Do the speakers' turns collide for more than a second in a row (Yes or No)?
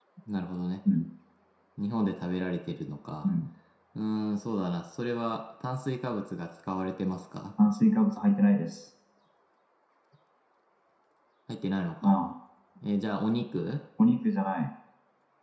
No